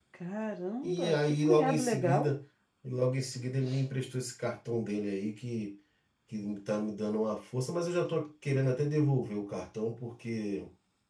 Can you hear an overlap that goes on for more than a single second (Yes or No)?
Yes